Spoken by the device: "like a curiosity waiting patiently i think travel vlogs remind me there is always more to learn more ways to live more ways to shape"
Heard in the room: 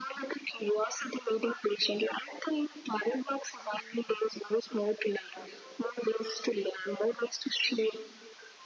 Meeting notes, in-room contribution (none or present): none